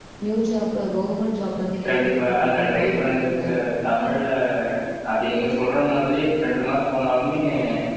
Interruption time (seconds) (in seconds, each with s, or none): 1.8 s